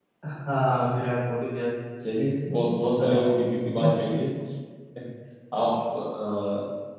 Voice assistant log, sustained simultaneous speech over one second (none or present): none